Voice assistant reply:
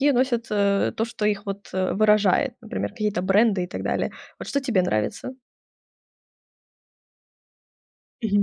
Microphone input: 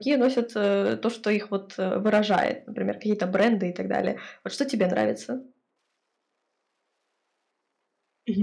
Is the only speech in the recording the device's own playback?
Yes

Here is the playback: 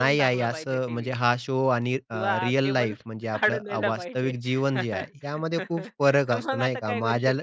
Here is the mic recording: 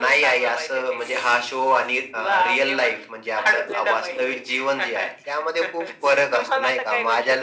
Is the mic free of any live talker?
Yes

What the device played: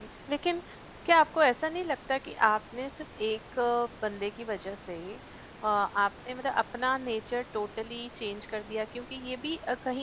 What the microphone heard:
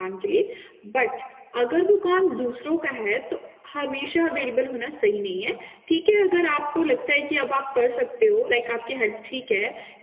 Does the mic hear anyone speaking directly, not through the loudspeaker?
Yes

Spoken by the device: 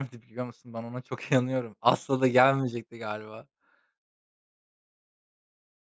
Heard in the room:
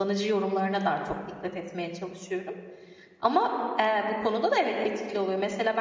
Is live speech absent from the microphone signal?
No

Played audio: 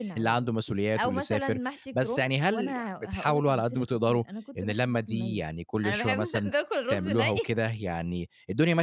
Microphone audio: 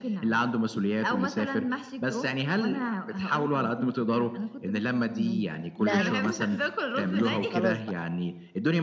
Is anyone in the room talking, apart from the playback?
Yes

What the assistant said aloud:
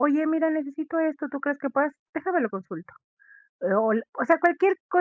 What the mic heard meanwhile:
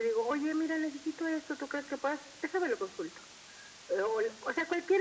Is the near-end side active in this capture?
No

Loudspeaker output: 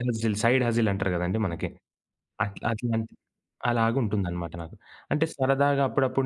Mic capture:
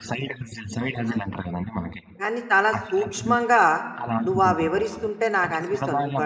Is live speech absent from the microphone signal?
No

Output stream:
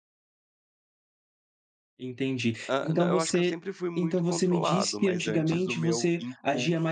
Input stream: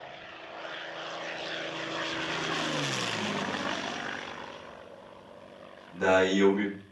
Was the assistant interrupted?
Yes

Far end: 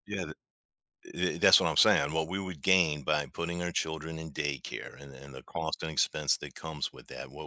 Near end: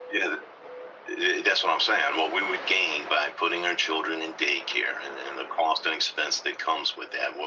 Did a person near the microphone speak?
No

